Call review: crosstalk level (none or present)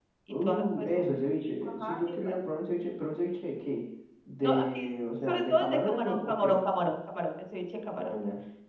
present